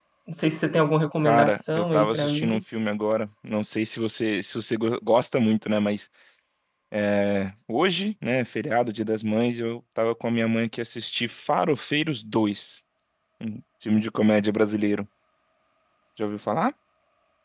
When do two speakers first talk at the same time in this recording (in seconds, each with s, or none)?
1.2 s